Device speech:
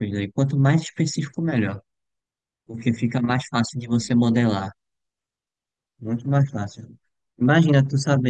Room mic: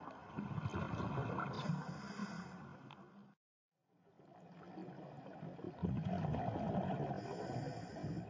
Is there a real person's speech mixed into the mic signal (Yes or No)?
No